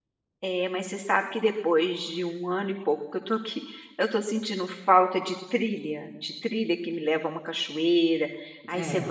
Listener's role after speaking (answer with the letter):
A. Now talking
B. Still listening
B